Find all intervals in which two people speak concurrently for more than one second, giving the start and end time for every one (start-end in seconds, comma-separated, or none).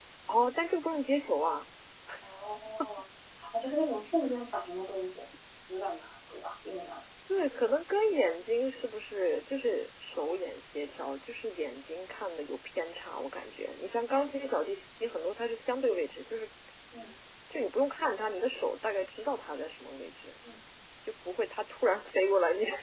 none